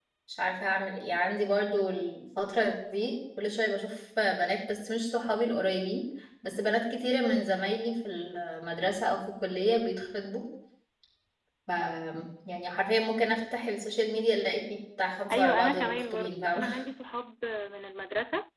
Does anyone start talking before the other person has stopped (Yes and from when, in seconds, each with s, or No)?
Yes, from 15.3 s